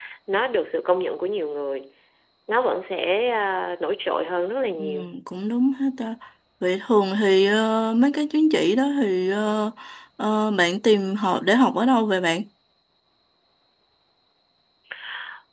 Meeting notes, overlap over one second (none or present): none